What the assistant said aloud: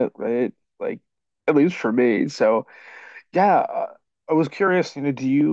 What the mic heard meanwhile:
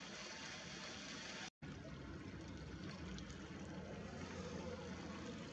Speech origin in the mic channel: neither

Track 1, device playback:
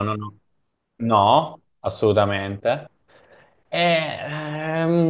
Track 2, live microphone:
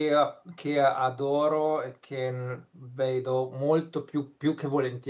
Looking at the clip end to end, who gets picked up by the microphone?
user only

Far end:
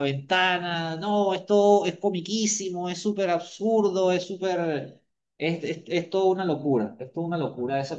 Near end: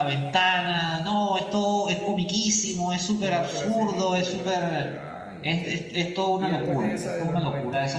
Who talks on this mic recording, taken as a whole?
both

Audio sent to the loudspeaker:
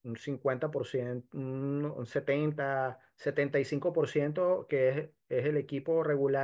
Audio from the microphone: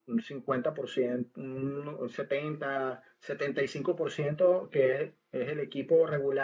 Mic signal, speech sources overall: echo only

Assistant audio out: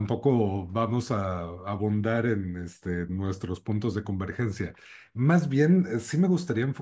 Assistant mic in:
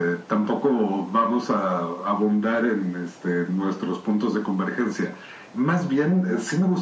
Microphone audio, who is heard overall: echo only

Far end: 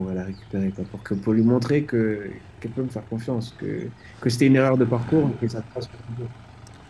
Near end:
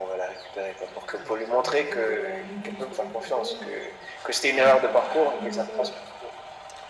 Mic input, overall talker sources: both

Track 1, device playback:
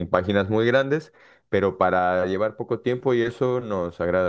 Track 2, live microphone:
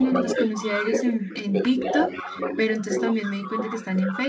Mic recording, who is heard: both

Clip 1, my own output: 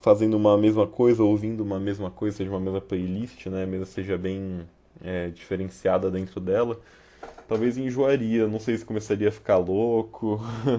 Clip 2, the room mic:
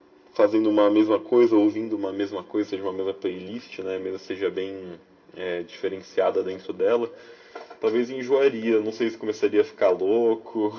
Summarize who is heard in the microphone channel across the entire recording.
echo only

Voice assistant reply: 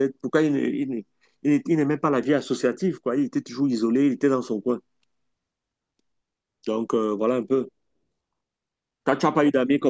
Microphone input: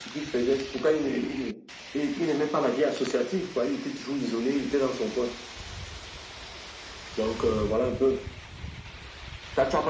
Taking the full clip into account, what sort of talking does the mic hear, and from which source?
echo only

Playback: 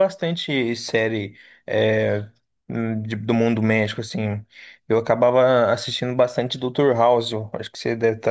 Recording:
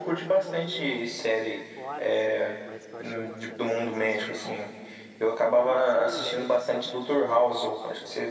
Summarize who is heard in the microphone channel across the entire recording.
both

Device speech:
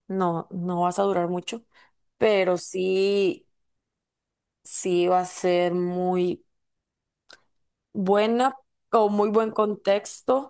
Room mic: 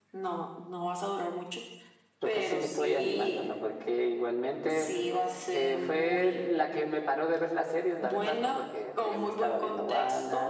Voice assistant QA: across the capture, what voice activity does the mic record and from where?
both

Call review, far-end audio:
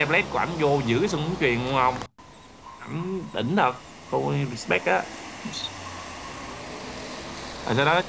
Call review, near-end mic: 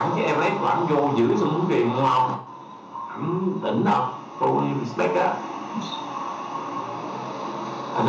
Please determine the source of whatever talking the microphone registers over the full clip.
echo only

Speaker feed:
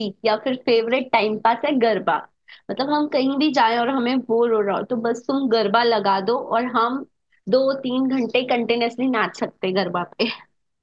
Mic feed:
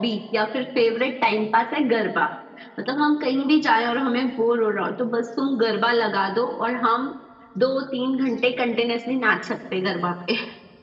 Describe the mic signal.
echo only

